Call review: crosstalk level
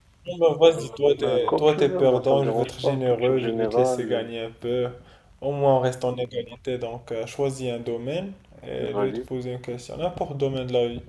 present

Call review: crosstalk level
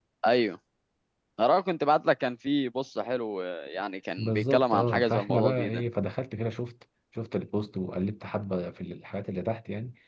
present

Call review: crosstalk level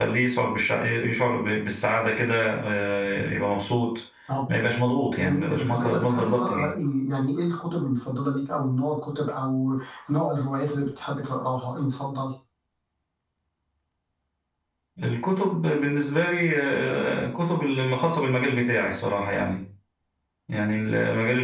present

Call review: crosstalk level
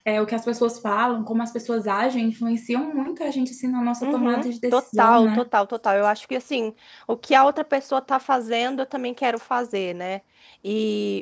present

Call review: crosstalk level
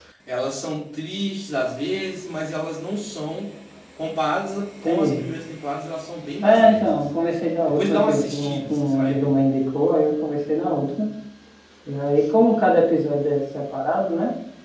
present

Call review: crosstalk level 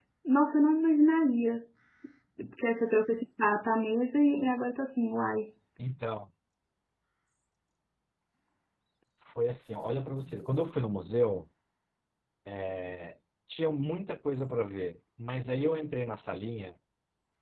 none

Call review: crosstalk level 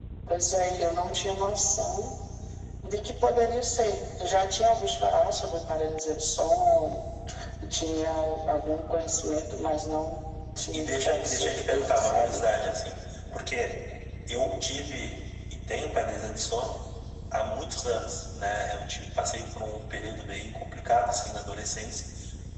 present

